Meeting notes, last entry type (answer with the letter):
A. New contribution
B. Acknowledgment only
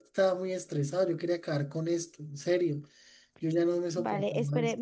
A